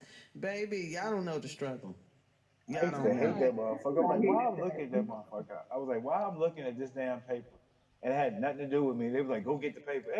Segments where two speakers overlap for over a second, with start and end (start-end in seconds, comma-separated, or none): 2.7-5.1